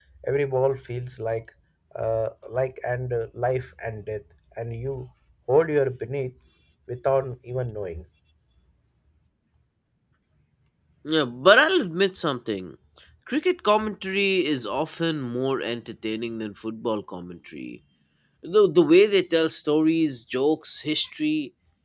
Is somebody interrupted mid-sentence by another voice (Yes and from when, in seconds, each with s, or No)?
No